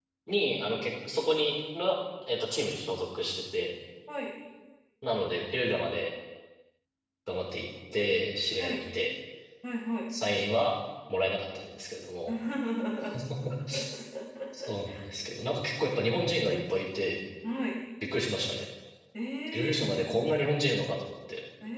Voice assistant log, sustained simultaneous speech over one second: none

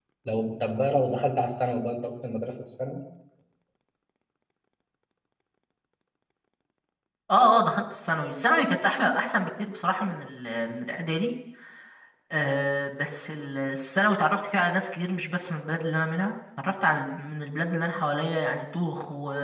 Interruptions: none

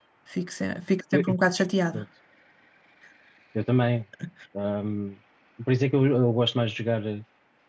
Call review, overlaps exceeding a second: none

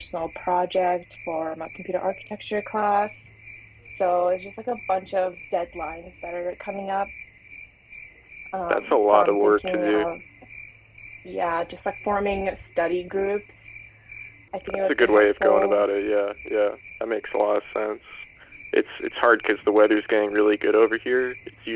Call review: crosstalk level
present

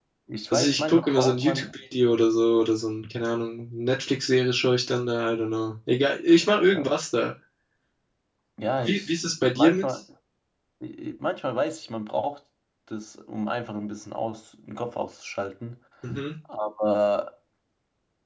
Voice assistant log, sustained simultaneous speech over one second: present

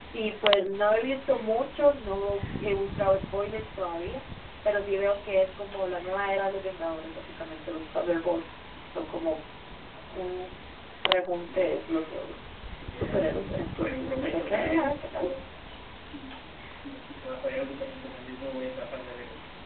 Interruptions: present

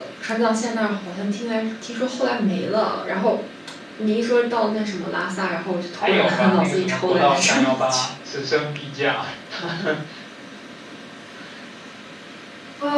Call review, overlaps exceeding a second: present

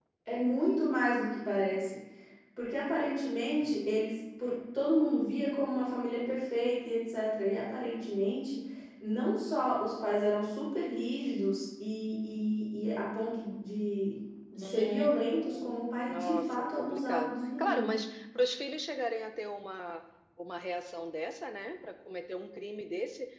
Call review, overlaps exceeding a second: present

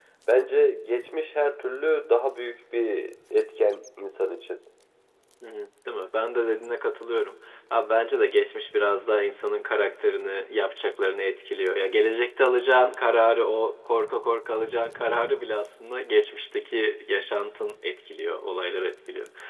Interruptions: none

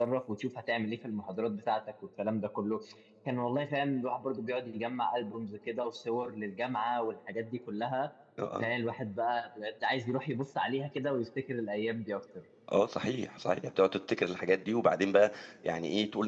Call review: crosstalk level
none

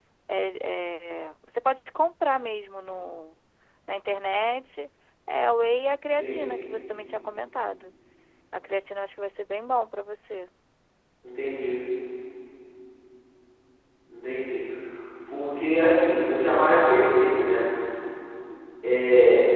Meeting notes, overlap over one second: none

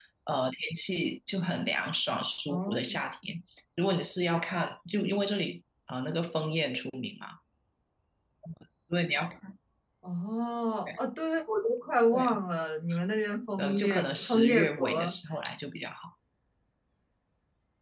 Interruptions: present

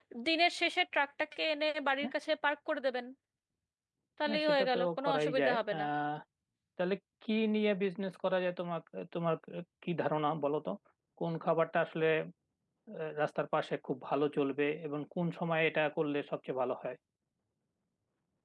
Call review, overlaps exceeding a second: present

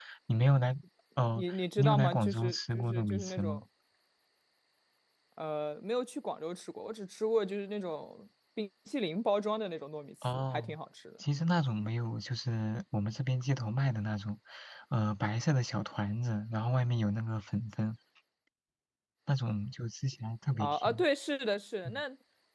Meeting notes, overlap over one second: present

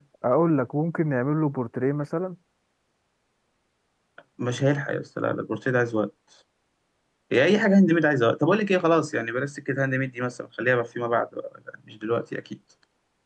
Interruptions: none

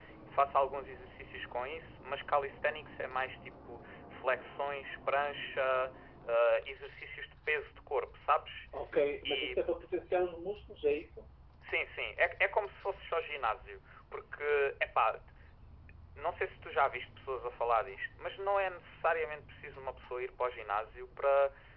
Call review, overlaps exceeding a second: none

